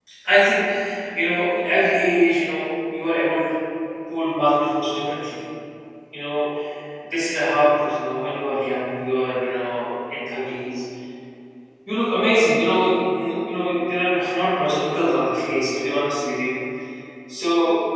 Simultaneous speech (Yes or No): No